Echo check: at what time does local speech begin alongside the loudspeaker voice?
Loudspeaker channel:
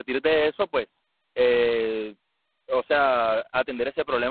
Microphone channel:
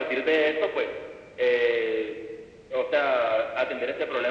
none

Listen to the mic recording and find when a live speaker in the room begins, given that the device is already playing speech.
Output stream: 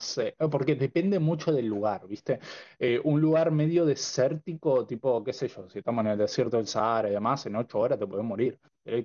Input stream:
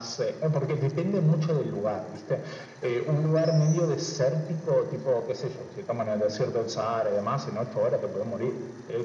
none

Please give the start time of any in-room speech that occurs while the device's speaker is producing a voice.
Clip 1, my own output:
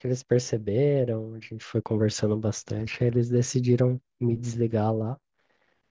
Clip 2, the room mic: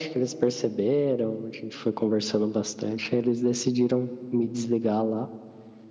none

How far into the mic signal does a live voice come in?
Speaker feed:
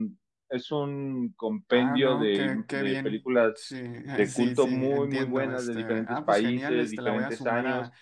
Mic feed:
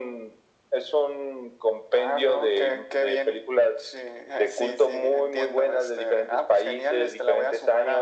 none

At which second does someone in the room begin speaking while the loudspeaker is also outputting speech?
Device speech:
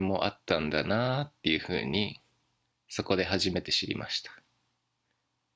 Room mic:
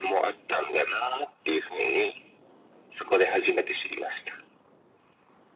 none

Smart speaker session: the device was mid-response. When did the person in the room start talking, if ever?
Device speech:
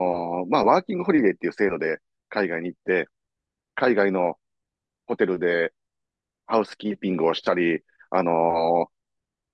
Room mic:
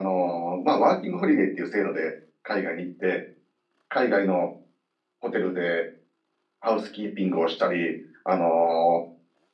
none

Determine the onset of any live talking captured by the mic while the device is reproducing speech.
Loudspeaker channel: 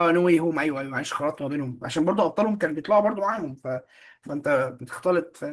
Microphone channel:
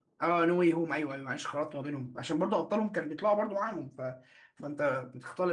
none

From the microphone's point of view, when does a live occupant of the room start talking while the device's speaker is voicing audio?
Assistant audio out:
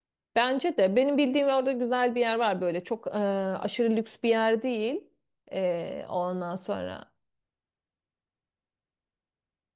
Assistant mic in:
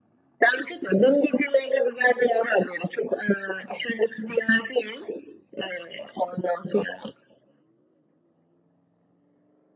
none

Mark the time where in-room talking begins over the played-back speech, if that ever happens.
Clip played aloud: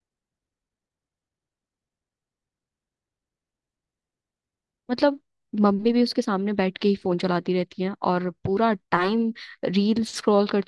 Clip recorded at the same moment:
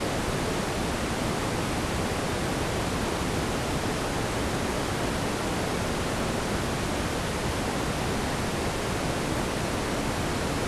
none

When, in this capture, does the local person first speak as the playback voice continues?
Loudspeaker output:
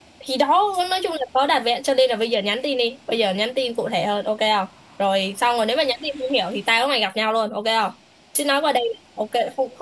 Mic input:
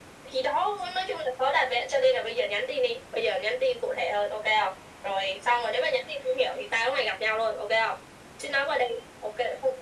none

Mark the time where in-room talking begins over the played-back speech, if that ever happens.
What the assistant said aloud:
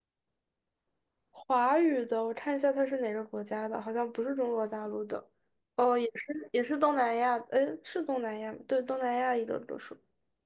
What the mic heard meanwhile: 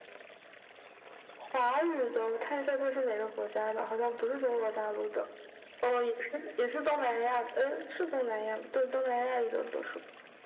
none

